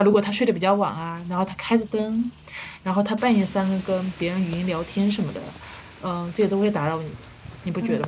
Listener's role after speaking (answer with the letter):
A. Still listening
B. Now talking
B